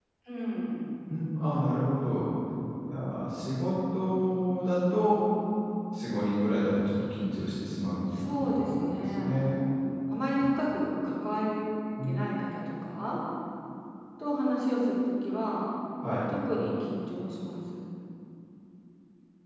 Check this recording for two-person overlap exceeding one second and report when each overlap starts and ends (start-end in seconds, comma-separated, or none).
8.1-9.6